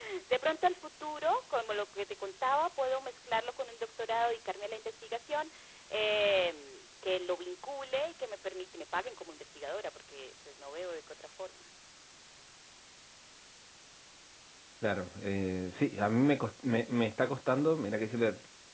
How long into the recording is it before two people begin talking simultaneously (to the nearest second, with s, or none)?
none